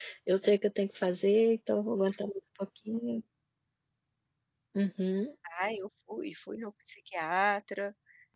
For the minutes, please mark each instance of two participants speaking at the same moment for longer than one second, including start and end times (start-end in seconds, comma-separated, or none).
none